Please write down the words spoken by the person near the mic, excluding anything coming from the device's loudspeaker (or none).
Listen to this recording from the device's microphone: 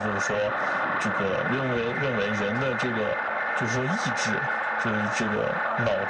none